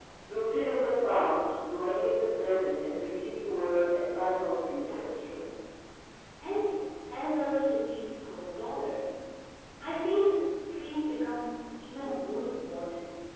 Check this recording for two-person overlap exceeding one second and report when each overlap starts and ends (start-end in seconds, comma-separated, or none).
none